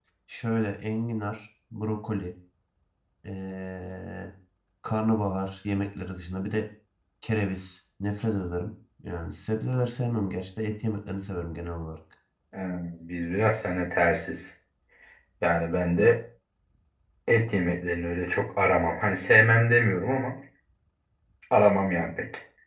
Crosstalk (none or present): none